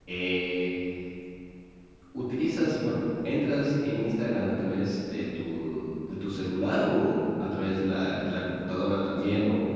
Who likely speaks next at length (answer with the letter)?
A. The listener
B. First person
A